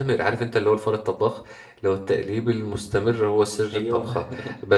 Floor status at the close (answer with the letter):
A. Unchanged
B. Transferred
A